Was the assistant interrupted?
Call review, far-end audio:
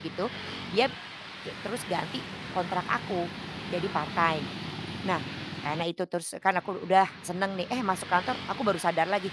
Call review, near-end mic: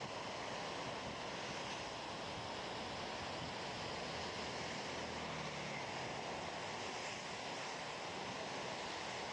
No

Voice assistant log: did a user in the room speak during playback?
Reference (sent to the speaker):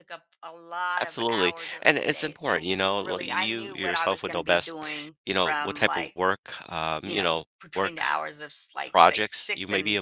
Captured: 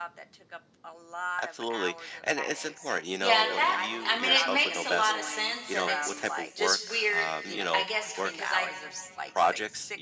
Yes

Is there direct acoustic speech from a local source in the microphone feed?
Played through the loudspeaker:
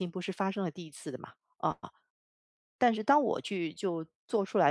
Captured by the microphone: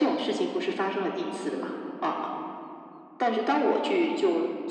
Yes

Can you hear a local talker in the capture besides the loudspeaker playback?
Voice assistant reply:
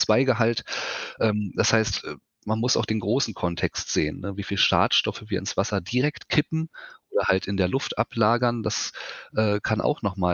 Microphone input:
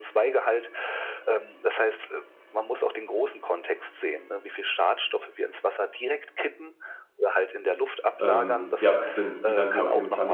Yes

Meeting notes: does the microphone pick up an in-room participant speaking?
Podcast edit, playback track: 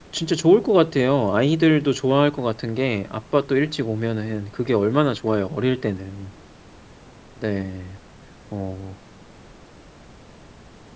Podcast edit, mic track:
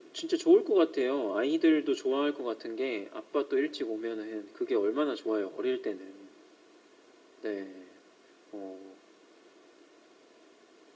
No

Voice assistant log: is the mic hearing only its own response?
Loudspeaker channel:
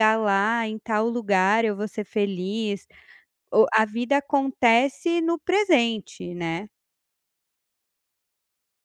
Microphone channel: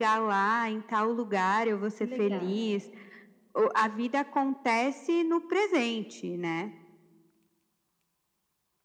No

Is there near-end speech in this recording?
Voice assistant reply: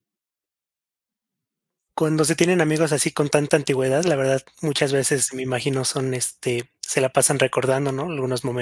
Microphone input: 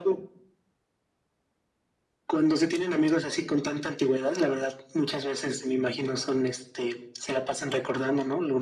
No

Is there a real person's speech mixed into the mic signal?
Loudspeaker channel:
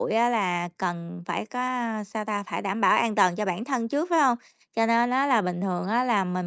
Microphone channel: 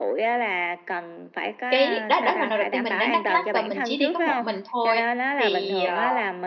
Yes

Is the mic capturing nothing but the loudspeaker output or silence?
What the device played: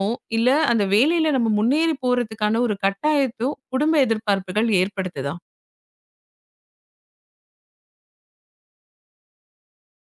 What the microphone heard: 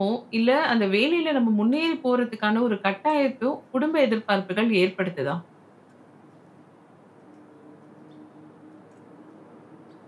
Yes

